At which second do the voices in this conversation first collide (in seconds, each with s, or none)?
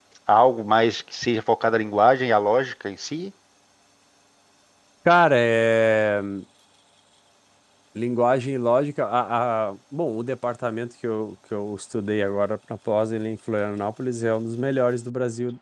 none